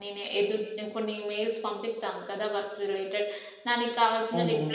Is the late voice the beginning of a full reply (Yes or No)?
No